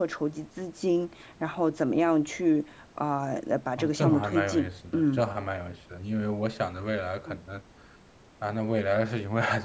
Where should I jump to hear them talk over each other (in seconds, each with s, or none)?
3.8 s